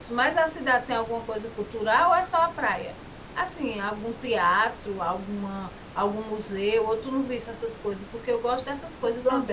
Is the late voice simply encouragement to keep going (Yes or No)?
No